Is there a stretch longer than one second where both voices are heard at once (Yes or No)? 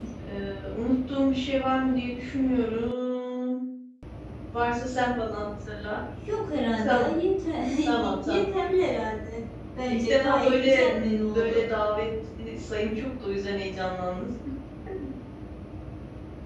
Yes